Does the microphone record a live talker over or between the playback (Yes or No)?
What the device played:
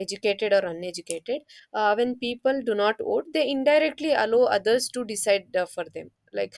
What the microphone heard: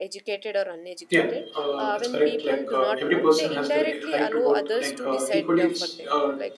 Yes